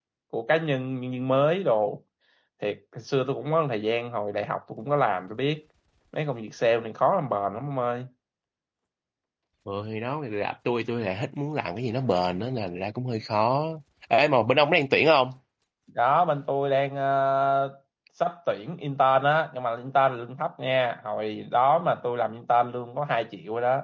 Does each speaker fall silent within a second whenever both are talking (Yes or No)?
Yes